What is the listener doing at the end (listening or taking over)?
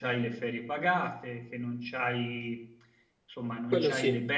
listening